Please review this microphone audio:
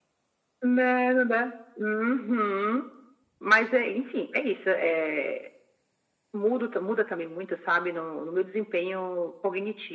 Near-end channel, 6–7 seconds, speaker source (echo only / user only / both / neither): echo only